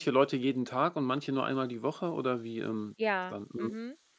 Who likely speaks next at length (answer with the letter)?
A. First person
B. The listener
B